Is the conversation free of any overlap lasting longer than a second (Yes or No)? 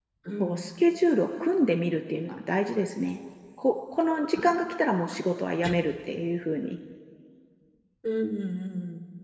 Yes